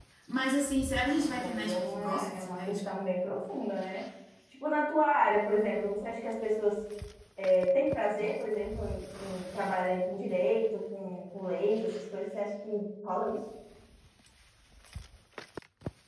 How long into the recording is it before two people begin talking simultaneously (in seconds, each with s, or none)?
1.0 s